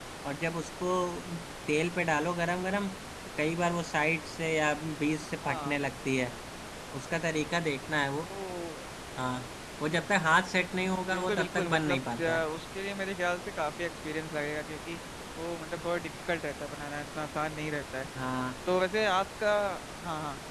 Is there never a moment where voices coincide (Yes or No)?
No